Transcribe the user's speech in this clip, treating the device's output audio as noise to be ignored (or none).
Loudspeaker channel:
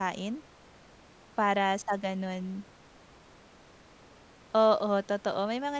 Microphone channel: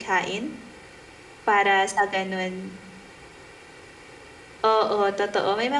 none